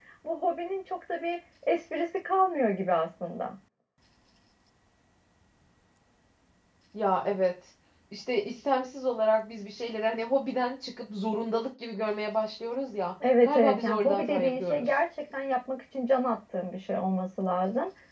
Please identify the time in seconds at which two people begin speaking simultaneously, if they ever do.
13.2 s

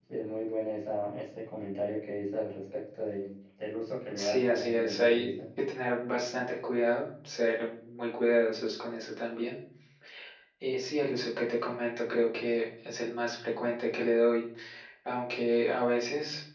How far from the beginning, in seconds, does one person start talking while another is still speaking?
4.1 s

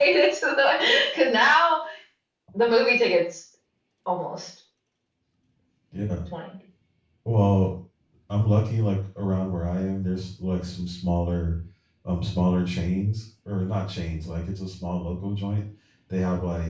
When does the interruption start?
none

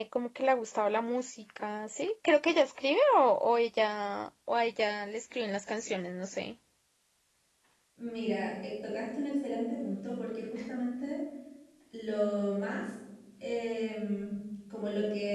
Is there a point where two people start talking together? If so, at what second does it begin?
none

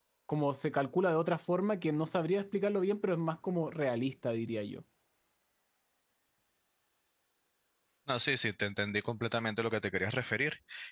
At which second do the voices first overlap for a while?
none

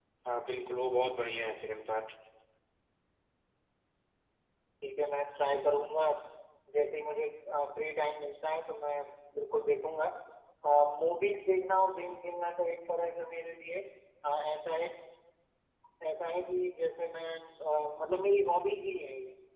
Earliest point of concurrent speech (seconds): none

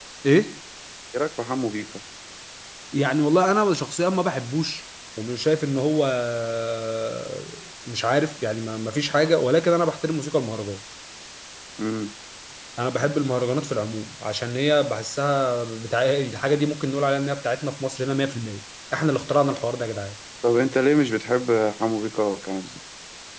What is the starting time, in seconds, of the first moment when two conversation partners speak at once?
none

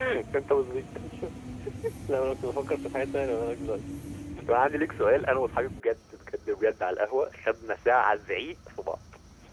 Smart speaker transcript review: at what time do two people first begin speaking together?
none

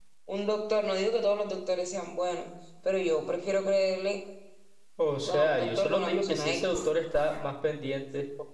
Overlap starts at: 5.3 s

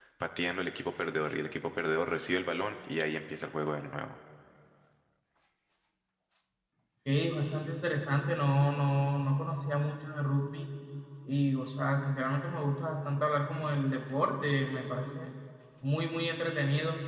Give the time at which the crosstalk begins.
none

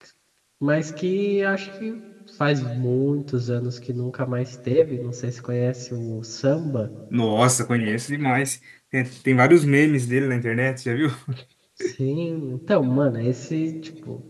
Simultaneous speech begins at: none

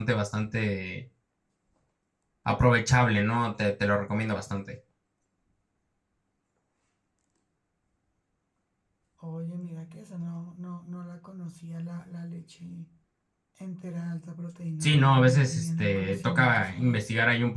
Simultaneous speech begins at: 14.8 s

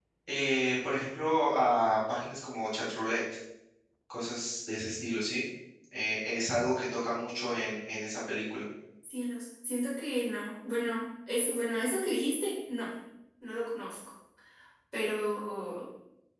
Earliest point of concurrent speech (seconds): none

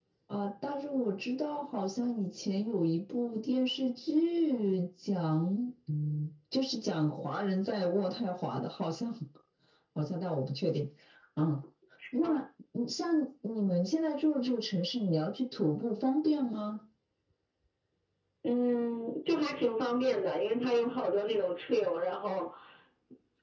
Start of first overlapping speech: none

